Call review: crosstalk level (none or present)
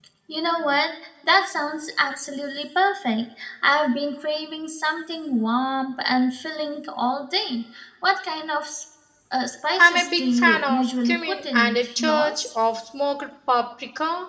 present